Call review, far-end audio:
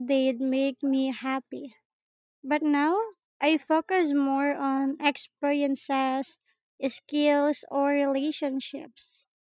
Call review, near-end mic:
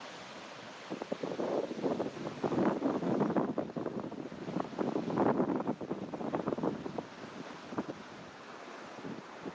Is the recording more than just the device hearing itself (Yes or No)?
No